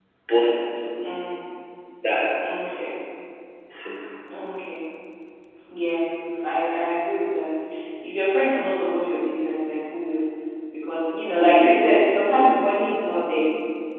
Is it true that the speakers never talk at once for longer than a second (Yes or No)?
Yes